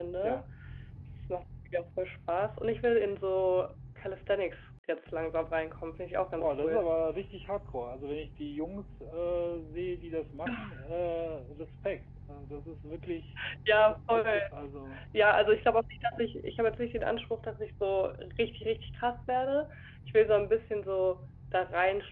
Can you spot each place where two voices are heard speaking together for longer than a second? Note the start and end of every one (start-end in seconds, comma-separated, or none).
none